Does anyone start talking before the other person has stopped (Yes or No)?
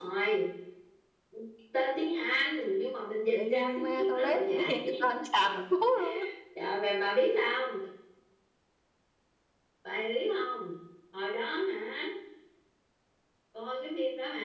Yes